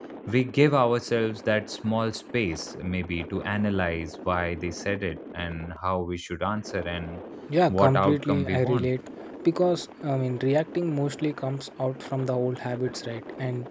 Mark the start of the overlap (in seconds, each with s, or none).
7.7 s